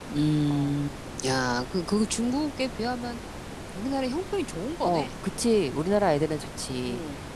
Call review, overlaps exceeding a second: none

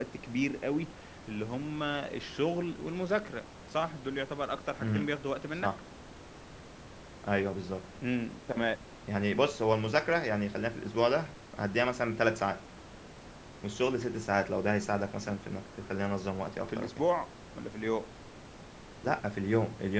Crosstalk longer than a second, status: none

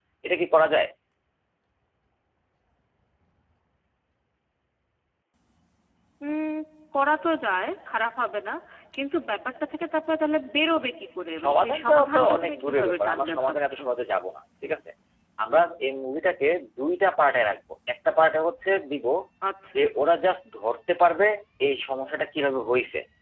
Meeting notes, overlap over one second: present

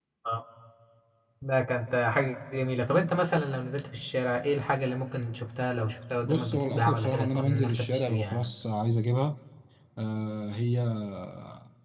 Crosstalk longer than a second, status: present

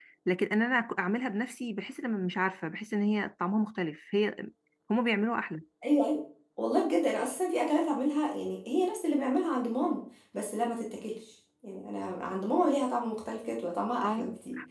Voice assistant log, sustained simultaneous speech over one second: none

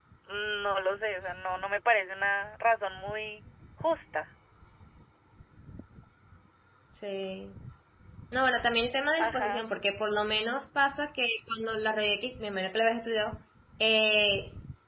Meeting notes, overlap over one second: none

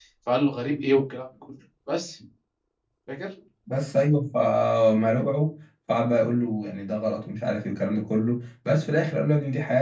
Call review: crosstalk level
none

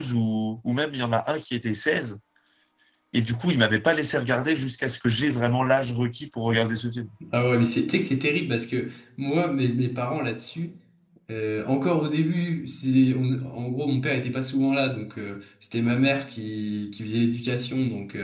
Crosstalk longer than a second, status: none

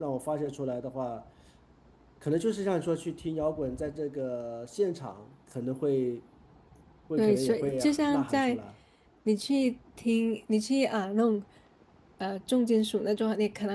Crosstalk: present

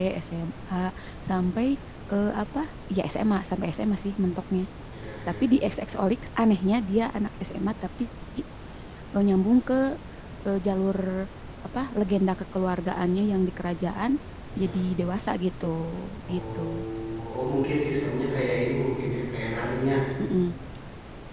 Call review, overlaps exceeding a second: none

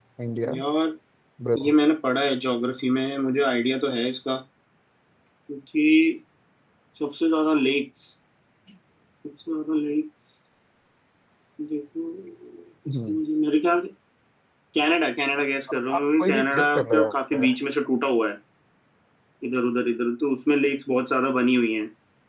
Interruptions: present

